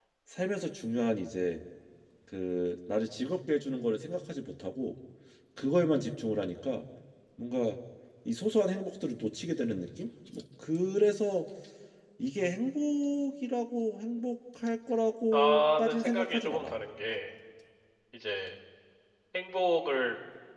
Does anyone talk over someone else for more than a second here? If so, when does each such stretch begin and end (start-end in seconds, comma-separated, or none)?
15.3-16.8